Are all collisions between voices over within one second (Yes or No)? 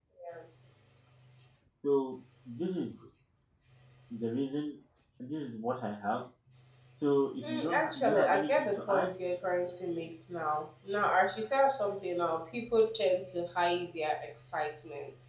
No